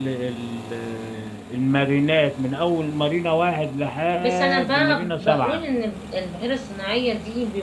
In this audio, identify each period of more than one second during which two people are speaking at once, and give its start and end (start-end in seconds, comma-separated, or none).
4.2-5.6